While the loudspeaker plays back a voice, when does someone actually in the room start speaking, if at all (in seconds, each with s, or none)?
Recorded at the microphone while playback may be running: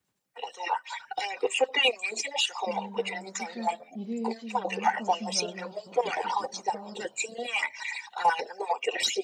2.6 s